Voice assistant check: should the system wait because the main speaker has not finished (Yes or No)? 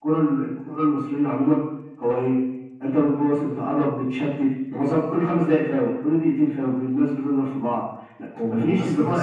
No